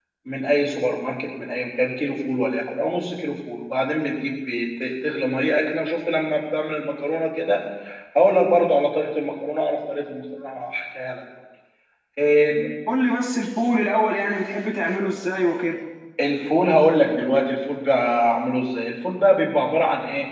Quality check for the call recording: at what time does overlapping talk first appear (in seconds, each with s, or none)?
none